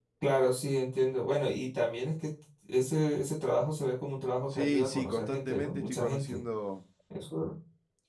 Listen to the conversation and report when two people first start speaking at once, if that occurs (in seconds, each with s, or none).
4.5 s